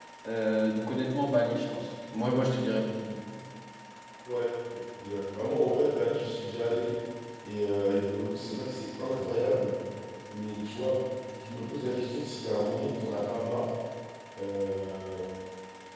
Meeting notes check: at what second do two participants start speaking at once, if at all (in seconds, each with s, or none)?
none